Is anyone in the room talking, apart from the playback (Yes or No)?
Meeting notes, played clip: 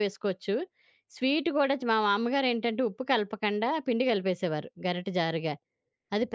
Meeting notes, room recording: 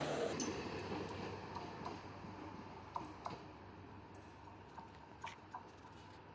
No